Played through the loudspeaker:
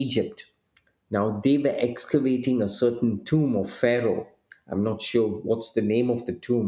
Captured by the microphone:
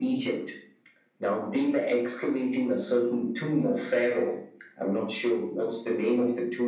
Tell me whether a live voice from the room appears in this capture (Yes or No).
No